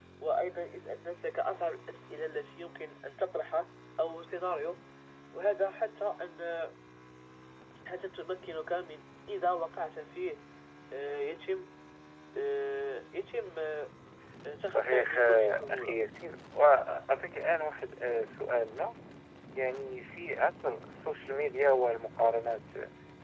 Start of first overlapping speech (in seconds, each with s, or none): 14.7 s